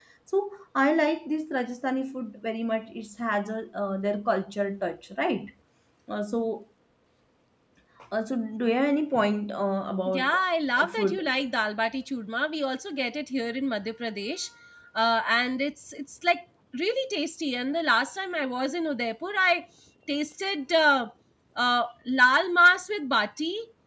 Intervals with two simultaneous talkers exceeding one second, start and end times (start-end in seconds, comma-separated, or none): none